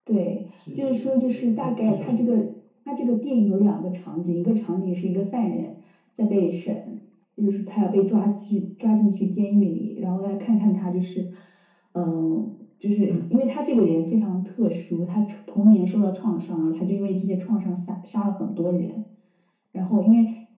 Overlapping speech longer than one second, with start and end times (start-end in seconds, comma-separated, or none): 0.7-2.4